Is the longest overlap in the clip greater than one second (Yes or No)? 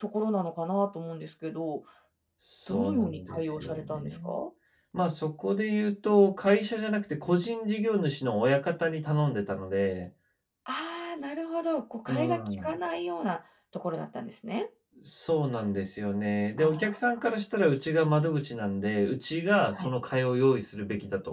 Yes